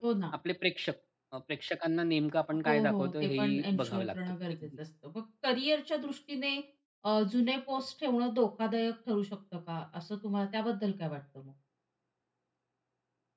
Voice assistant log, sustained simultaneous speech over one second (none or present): present